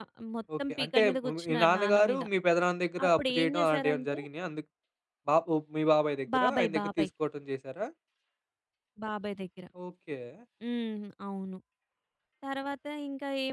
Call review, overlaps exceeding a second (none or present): present